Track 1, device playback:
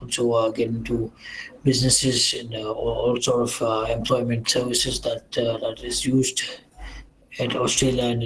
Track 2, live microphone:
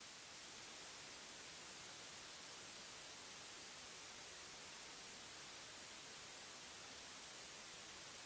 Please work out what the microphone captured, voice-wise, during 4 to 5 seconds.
neither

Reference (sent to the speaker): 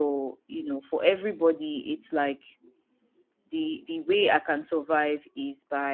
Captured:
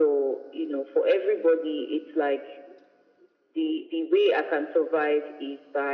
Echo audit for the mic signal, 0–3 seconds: echo only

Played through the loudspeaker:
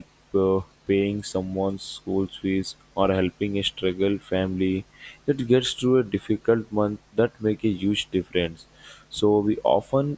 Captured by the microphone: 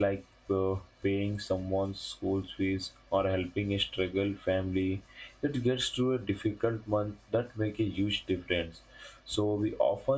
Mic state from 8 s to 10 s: echo only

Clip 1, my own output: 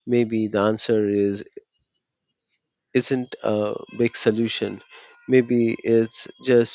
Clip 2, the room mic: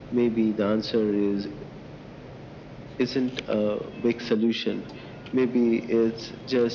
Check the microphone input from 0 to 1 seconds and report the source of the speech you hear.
echo only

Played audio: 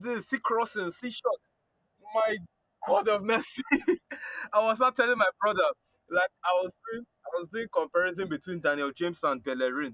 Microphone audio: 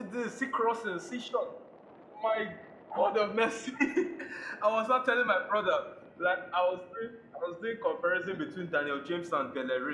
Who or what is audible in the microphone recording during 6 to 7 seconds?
echo only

